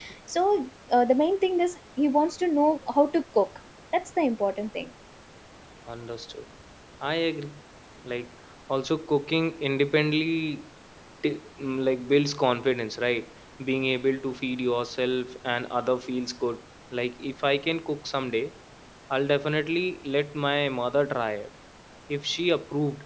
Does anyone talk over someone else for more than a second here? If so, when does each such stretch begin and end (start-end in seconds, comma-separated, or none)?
none